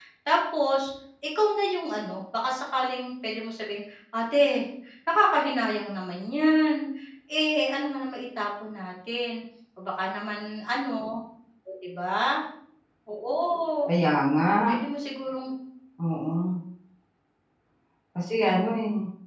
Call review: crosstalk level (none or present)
none